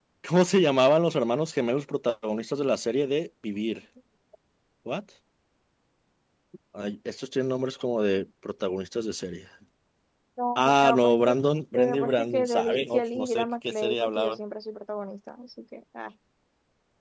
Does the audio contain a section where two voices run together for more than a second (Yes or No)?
Yes